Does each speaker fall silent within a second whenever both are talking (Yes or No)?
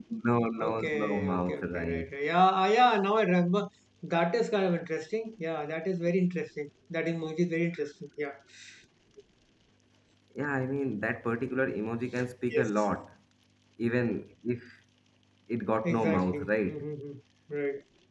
No